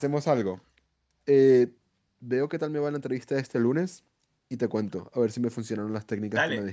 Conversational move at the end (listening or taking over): taking over